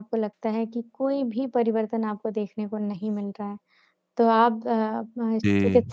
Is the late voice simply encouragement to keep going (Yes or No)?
Yes